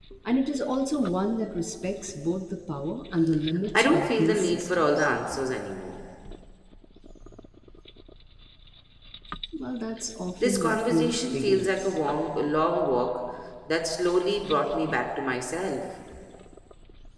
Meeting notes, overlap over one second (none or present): present